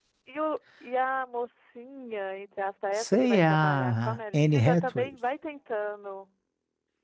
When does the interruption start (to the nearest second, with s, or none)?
3 s